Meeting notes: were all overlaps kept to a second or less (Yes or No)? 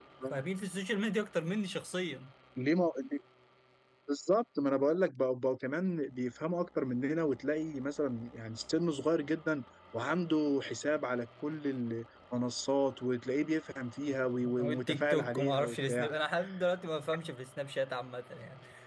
No